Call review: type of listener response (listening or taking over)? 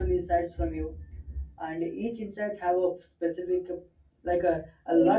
listening